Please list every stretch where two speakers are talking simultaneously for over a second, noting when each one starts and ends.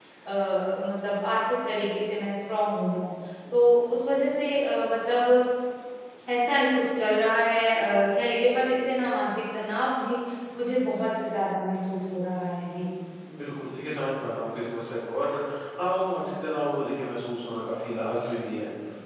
none

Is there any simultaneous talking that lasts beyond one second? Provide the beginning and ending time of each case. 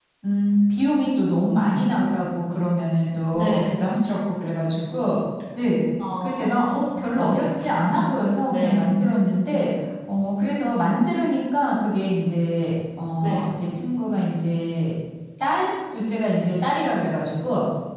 6.2-7.9

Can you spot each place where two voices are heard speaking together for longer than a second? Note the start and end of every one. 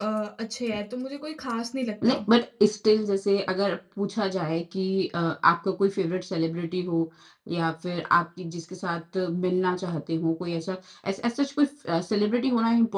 none

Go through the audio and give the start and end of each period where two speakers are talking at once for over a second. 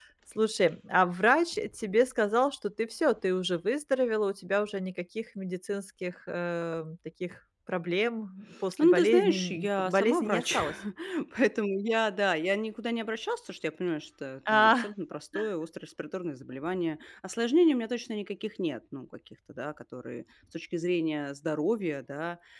8.8-10.6

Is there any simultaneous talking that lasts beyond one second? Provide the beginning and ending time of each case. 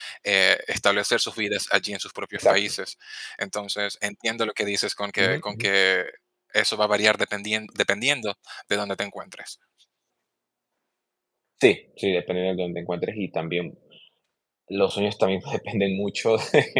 none

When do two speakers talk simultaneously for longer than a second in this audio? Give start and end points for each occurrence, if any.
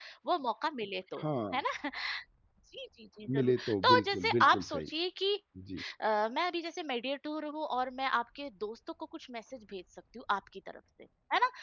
3.4-4.9

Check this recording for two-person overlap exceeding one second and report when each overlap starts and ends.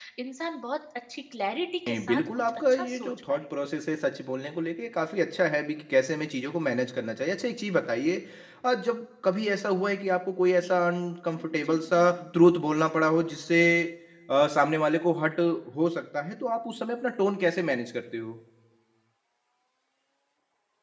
1.9-3.4

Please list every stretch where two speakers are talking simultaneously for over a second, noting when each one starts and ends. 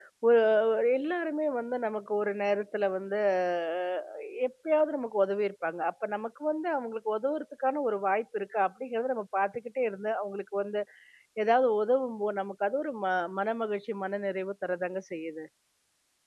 none

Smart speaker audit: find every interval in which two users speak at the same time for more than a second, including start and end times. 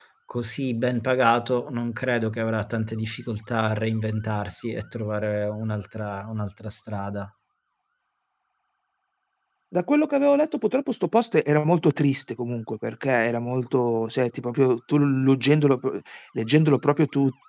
none

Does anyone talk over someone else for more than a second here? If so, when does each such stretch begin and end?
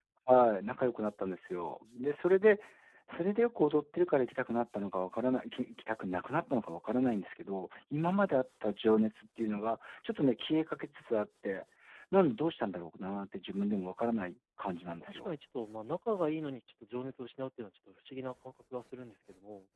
none

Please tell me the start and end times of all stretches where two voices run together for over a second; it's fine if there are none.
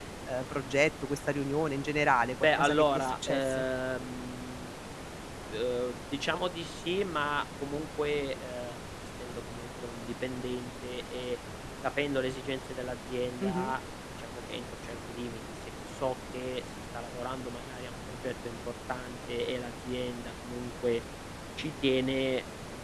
2.4-3.6

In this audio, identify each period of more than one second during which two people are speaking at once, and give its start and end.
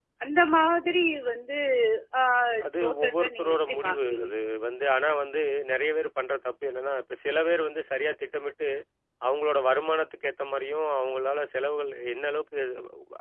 2.8-4.3

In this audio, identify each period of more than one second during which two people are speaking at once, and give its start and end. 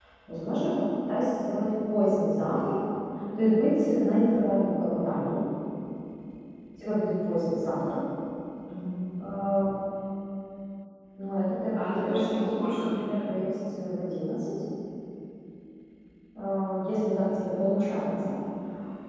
11.7-13.2

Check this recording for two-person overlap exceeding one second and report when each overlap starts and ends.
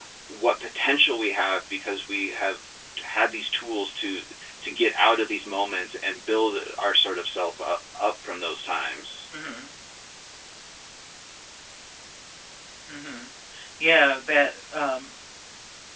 none

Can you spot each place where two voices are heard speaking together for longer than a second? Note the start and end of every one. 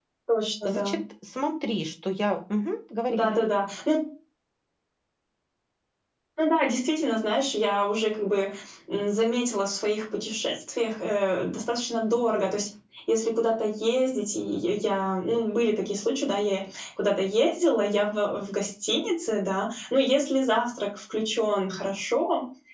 none

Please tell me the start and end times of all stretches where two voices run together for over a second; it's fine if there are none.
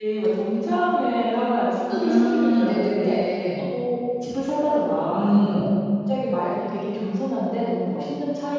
1.9-3.2

